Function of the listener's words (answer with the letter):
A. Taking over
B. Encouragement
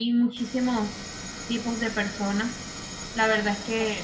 B